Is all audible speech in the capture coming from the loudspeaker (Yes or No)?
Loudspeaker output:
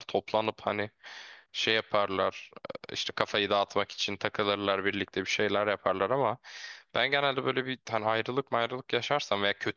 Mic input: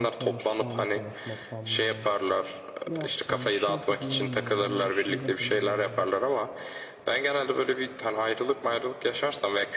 No